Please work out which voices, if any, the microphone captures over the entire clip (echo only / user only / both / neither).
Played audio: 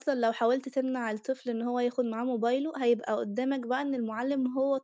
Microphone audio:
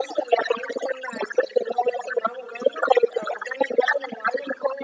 echo only